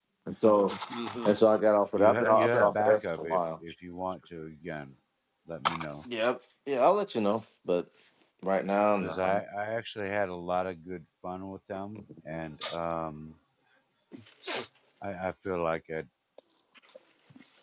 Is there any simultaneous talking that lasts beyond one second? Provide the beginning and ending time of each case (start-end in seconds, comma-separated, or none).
2.0-3.4